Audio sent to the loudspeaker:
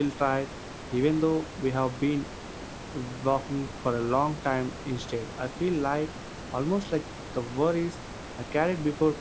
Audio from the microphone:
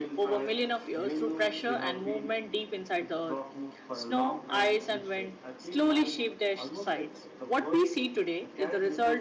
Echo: present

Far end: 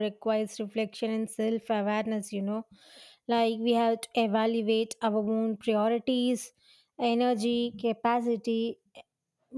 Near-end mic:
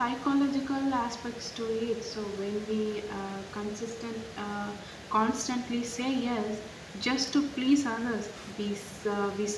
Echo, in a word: none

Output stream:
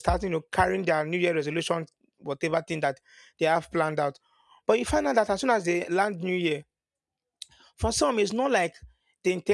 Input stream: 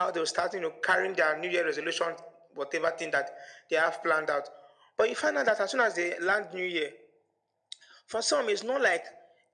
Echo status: present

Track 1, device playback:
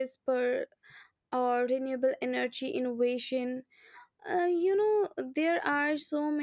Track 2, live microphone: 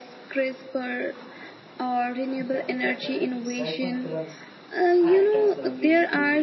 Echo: present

